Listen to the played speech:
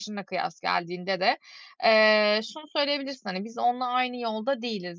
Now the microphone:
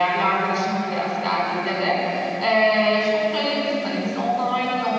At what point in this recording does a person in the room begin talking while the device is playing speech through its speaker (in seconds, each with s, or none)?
none